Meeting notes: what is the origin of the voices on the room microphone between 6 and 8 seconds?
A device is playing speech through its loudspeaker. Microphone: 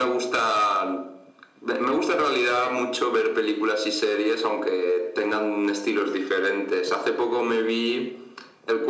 echo only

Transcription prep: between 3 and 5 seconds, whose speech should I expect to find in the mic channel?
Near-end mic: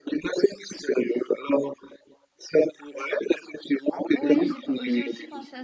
both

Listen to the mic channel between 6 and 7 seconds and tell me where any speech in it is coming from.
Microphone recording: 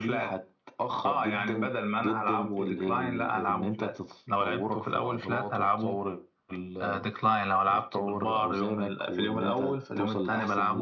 echo only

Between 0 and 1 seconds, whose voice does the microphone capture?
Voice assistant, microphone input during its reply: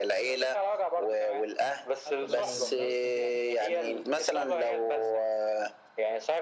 echo only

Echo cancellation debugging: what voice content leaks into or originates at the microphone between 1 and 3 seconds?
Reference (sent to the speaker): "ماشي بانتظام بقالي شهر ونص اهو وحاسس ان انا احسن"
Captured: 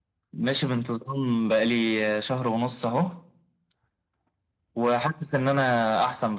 echo only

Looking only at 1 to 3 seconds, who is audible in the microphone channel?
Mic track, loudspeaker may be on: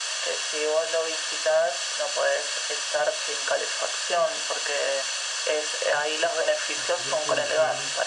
echo only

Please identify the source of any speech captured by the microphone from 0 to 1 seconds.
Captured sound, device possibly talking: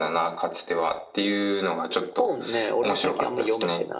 echo only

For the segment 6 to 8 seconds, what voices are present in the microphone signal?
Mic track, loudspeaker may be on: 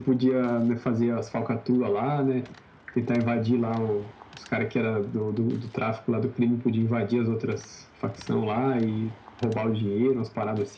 echo only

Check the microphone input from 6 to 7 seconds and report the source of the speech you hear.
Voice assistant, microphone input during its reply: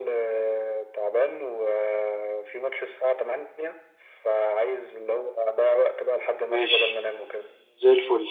both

